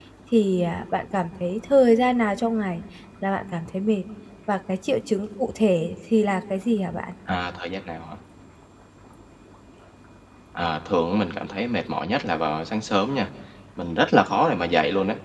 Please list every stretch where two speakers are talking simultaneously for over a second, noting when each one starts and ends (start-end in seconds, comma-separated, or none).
none